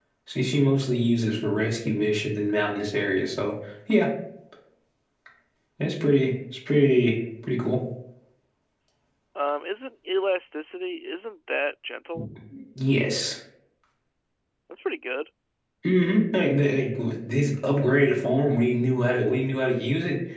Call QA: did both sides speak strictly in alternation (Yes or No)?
Yes